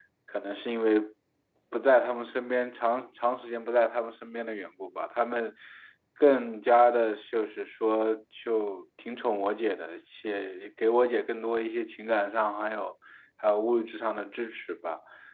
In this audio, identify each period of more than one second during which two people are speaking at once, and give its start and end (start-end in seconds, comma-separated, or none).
none